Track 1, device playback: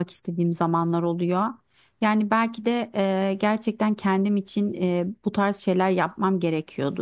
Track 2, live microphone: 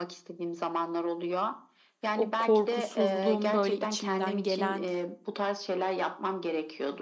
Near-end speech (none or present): present